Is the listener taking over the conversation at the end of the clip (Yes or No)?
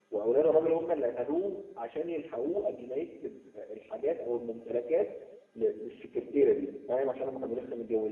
No